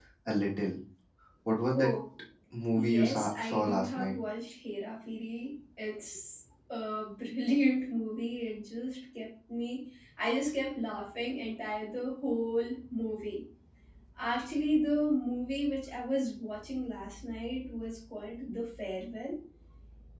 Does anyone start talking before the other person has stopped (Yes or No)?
Yes